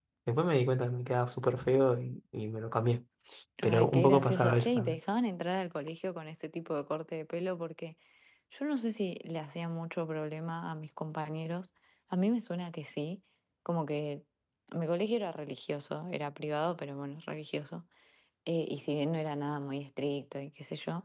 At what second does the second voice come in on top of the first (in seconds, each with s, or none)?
3.6 s